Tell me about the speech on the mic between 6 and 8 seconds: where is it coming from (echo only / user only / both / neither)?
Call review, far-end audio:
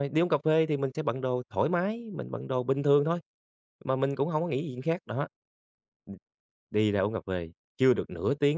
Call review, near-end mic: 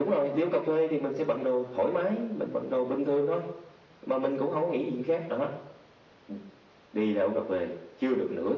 echo only